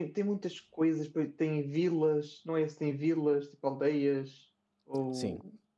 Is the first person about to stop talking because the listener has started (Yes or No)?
Yes